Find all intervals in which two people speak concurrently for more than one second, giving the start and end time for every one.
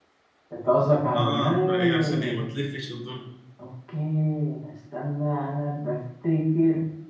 1.1-2.5

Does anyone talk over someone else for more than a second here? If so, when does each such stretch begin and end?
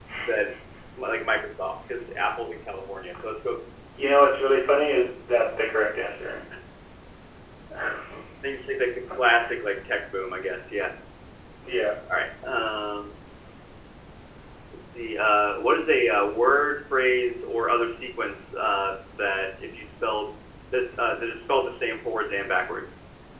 none

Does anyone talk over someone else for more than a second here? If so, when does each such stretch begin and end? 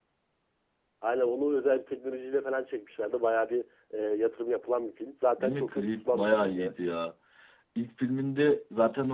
5.4-6.7

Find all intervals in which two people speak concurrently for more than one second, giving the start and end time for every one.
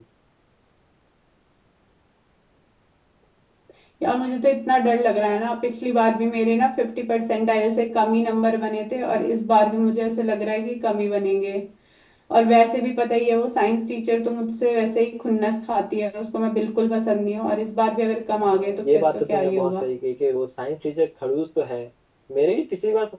18.4-19.8

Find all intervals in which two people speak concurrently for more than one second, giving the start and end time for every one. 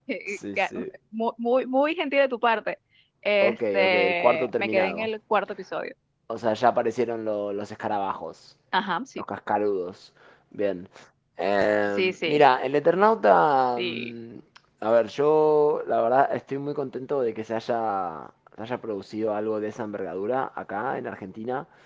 3.4-5.1

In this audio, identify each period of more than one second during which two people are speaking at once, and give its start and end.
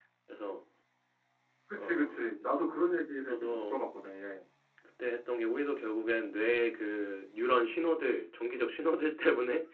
none

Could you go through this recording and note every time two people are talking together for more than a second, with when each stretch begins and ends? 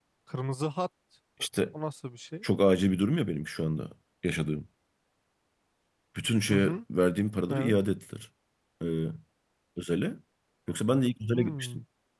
none

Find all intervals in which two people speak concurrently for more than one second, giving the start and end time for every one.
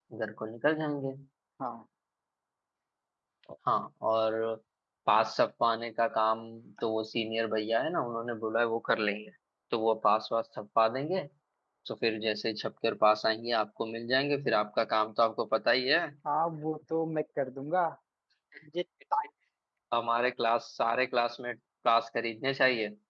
none

